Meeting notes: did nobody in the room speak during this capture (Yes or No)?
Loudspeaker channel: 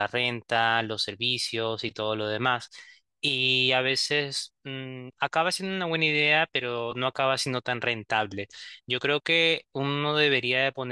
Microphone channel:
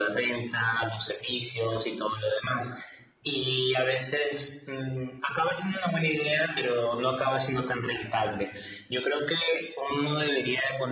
Yes